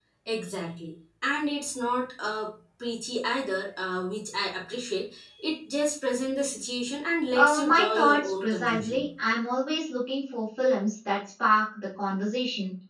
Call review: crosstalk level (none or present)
present